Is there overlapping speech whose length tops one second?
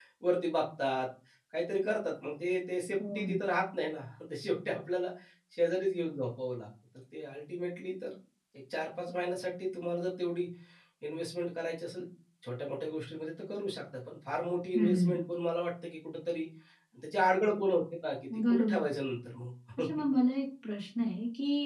No

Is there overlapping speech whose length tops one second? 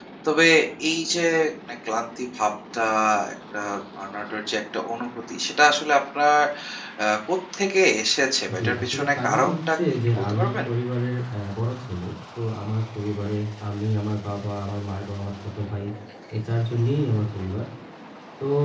Yes, from 8.5 s

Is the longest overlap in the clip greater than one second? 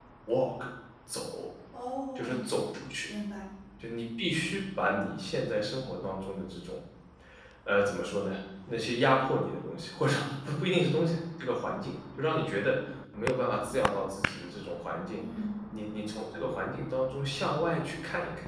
No

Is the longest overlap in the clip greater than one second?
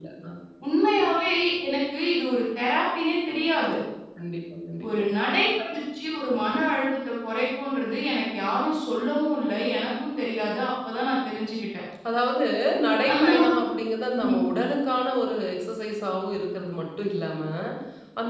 No

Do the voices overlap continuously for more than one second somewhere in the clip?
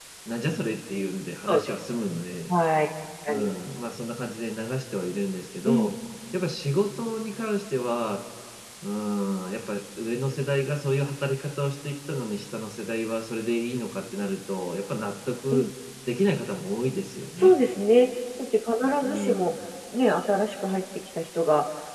No

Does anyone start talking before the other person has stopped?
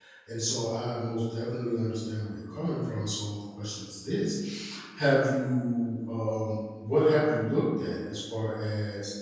No

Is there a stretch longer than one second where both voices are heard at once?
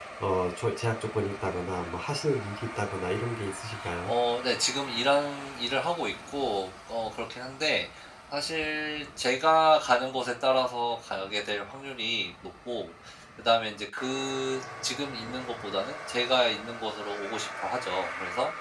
No

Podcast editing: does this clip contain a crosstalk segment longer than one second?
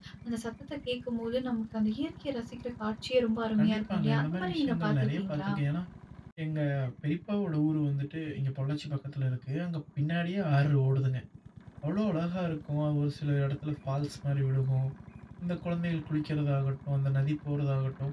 Yes, from 3.6 s

